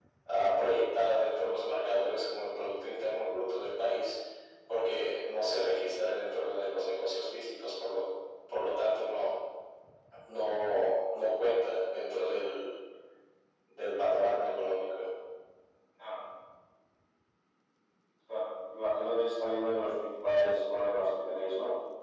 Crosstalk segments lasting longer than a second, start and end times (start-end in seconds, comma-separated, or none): none